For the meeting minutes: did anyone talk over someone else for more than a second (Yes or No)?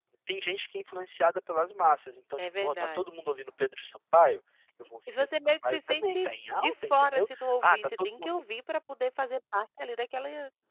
Yes